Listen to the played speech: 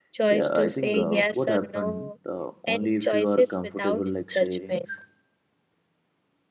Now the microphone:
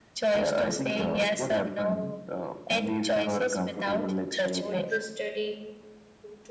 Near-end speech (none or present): present